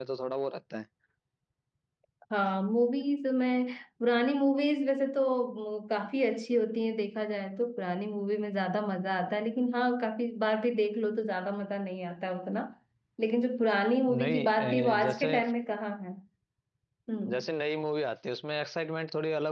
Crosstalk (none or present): present